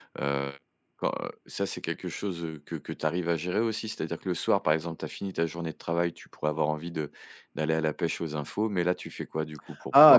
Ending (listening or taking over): taking over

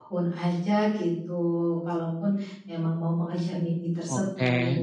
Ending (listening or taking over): taking over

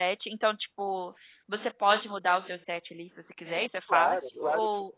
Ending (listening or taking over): taking over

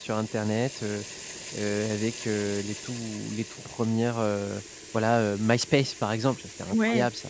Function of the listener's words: taking over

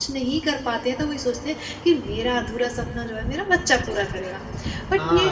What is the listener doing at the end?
taking over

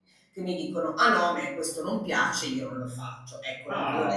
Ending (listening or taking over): taking over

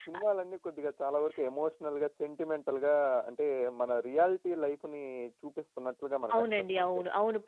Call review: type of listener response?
taking over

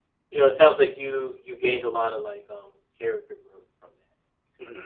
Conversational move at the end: taking over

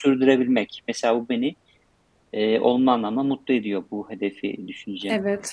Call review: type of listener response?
taking over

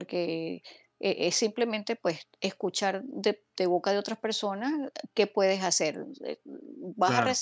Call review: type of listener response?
listening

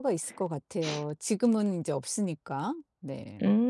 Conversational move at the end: taking over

